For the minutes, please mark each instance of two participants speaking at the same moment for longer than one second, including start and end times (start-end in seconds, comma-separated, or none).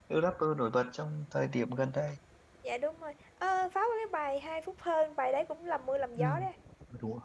none